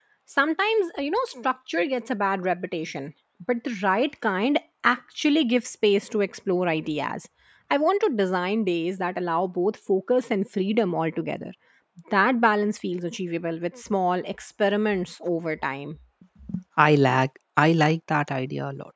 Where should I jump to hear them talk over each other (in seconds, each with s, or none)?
none